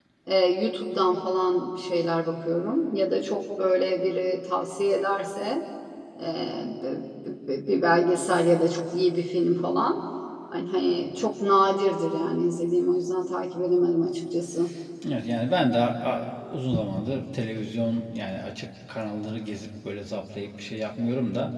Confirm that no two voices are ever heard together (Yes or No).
Yes